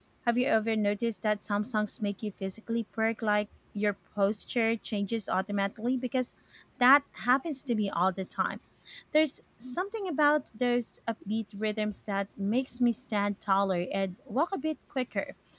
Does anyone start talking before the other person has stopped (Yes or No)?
No